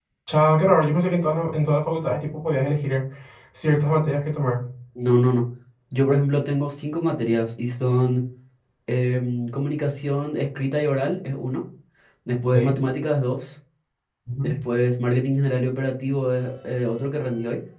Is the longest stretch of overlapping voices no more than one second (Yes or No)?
Yes